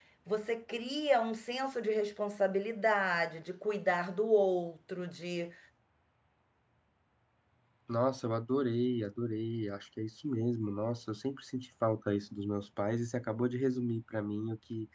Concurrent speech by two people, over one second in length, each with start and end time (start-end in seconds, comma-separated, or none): none